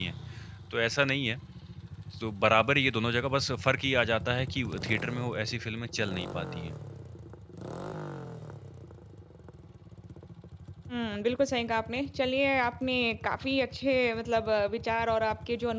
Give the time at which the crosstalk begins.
none

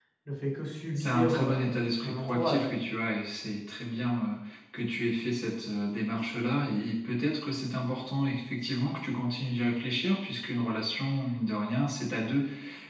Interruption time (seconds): 1.0 s

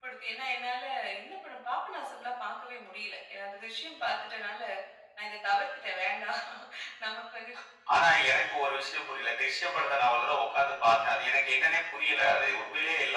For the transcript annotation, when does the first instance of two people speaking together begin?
none

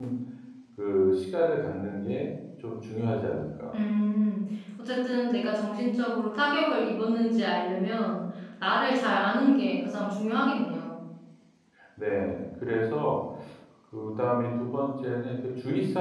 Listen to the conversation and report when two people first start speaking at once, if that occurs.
none

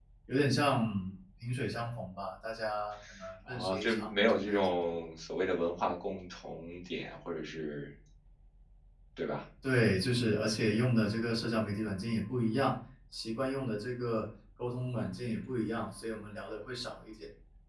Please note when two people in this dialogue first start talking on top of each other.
3.5 s

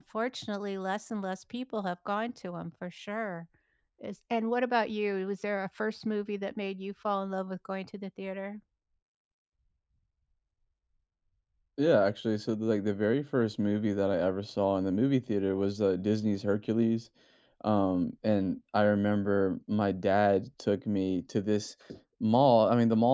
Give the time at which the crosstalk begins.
none

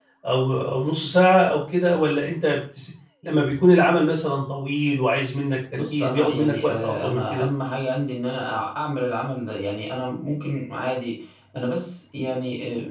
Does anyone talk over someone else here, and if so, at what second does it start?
5.8 s

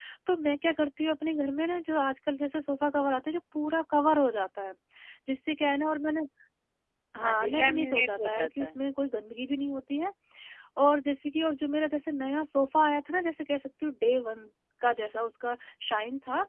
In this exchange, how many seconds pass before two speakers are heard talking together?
7.2 s

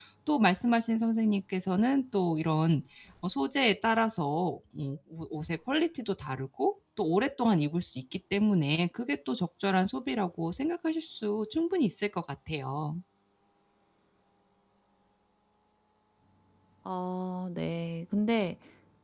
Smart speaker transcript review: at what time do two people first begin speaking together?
none

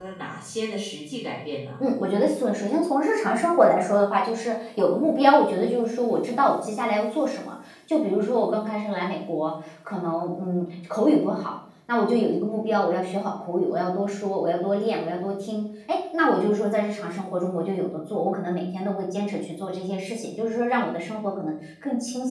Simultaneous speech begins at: none

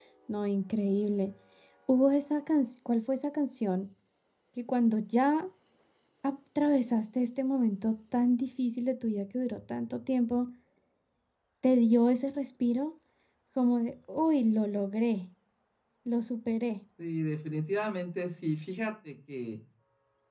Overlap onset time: none

